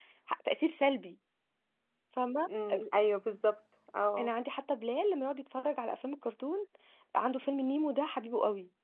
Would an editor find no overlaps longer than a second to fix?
Yes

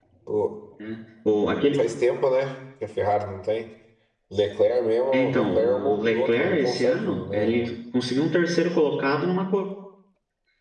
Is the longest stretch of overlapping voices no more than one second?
No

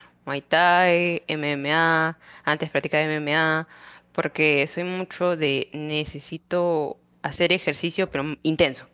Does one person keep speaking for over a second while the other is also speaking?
No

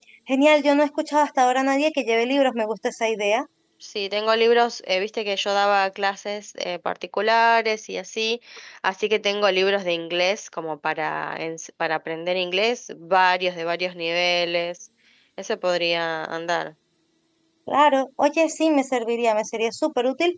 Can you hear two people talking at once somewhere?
No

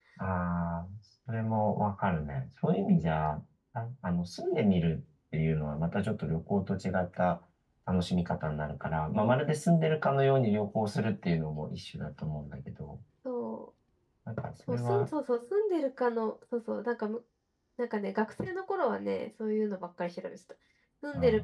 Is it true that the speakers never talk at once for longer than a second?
Yes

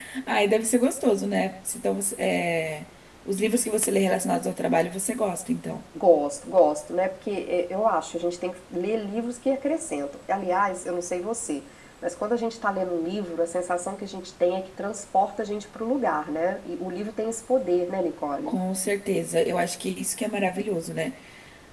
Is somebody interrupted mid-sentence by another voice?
No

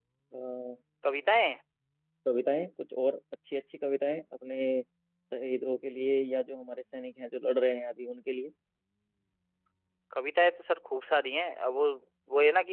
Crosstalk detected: No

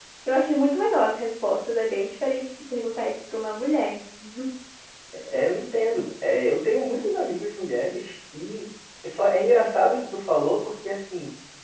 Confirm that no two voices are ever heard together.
Yes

